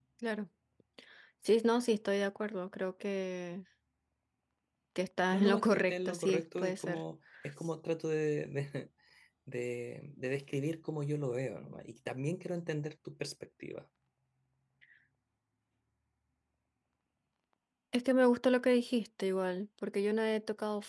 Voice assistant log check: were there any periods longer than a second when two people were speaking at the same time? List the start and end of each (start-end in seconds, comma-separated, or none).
5.3-7.0